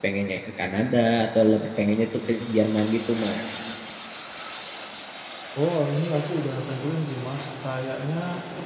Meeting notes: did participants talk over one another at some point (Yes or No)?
No